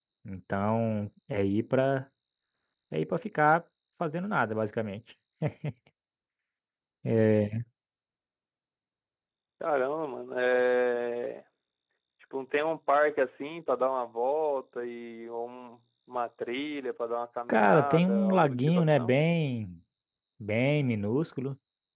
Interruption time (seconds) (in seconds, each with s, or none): 17.5 s